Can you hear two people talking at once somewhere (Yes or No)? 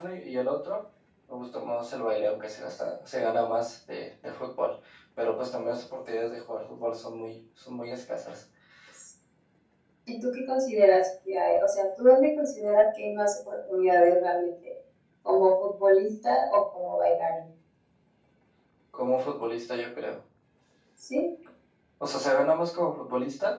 No